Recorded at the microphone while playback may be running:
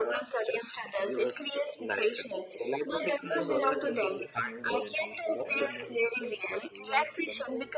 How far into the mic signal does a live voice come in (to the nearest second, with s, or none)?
3 s